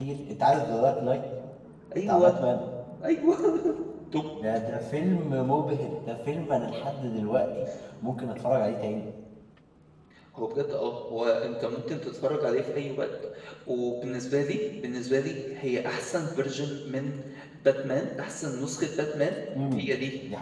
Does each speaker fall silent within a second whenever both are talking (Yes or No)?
Yes